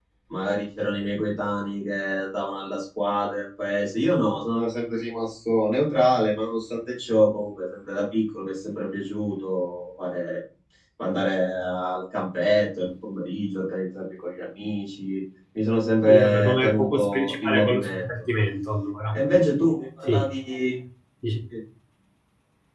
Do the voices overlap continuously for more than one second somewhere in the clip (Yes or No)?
Yes